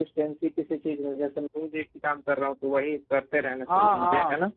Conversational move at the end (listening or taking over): taking over